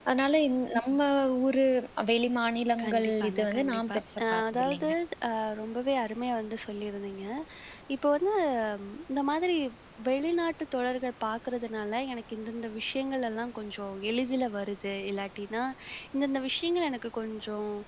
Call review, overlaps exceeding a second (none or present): present